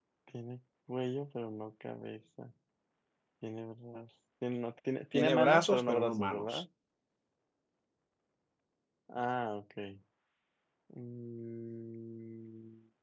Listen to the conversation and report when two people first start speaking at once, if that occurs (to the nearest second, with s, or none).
5 s